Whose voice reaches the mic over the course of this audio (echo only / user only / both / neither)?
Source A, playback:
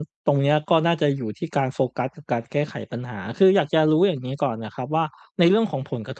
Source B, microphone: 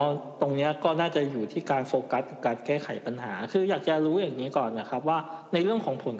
echo only